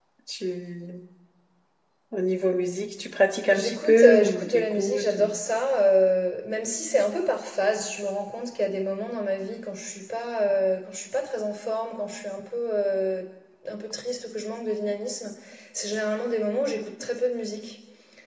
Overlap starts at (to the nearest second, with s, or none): 4 s